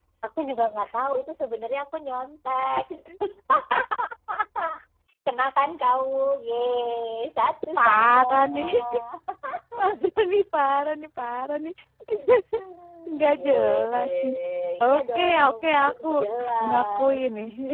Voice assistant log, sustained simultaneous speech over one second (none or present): present